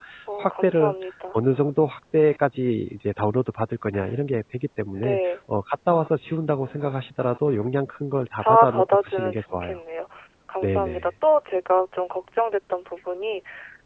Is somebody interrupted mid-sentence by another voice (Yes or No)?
Yes